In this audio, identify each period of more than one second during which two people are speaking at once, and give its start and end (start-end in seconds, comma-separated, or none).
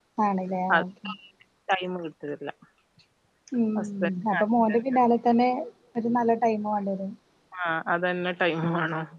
none